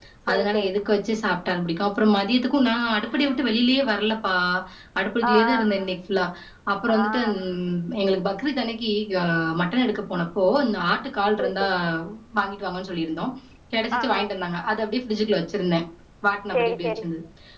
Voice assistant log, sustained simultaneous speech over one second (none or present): none